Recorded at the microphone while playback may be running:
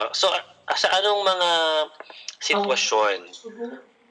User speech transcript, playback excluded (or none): Okey, sugo